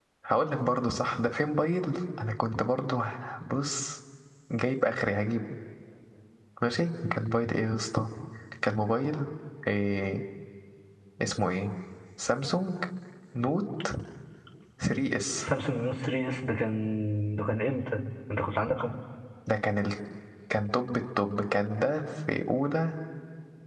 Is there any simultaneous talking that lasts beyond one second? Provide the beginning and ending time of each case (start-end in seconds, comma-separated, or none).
none